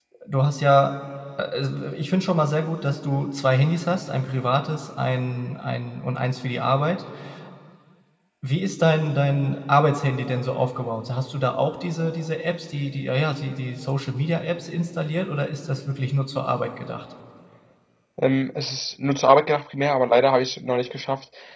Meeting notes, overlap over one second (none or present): none